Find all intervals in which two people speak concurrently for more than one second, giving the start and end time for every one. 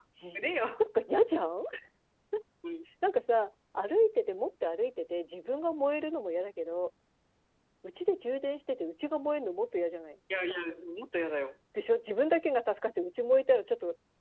none

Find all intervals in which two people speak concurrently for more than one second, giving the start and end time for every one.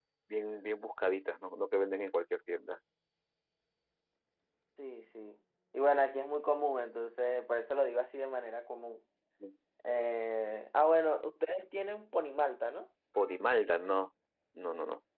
none

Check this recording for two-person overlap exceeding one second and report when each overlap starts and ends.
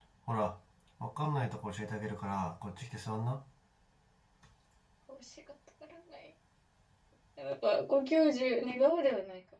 none

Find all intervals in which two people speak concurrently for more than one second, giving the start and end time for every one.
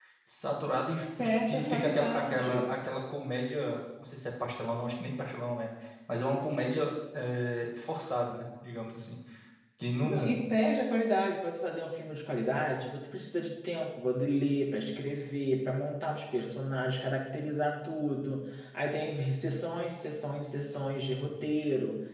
1.2-2.7

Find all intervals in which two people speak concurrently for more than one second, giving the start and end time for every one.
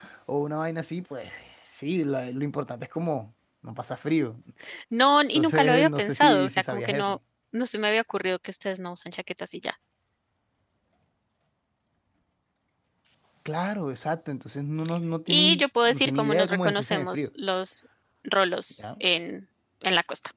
5.3-7.2, 15.3-17.3

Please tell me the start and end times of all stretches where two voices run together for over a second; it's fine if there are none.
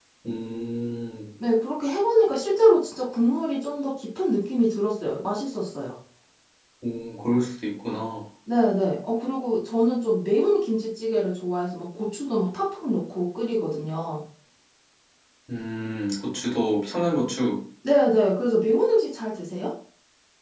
none

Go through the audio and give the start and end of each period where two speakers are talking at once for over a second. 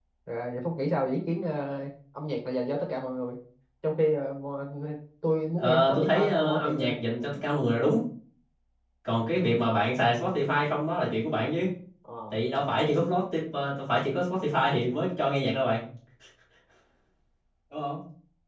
5.6-6.9

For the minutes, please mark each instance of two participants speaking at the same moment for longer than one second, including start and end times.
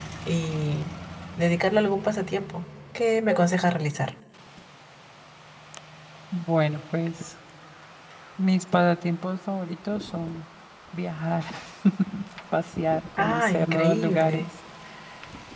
13.2-14.4

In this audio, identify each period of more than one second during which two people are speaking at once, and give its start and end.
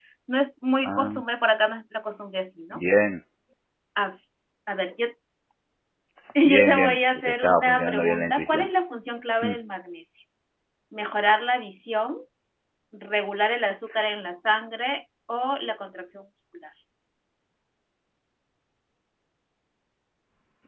6.4-8.7

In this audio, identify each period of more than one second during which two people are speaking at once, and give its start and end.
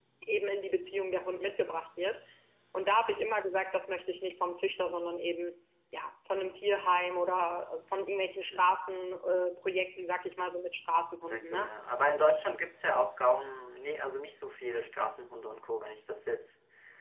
none

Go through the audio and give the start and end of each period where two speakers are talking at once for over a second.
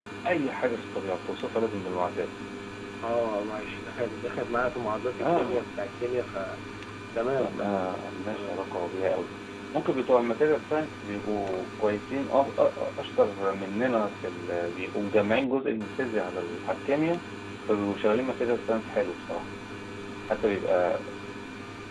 none

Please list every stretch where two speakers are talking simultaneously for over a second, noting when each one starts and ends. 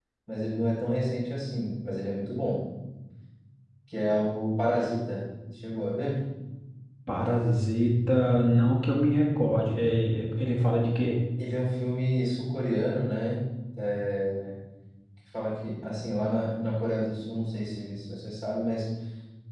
none

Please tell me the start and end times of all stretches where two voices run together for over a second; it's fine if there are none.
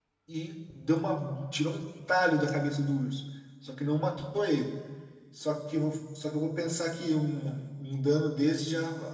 none

